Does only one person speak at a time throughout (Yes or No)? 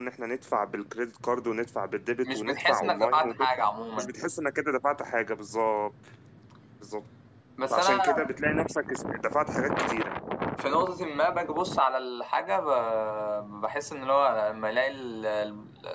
No